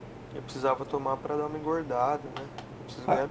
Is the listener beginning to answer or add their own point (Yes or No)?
Yes